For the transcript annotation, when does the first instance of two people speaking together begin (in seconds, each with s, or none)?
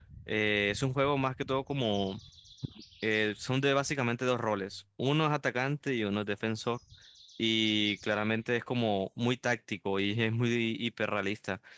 none